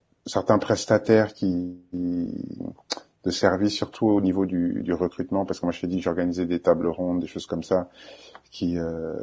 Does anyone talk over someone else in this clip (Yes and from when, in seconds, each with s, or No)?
No